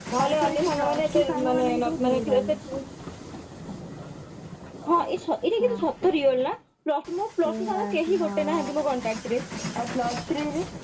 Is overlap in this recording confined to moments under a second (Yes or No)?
No